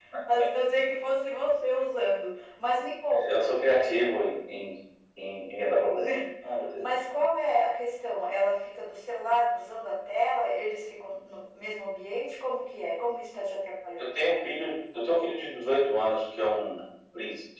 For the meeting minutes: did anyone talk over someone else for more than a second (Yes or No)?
No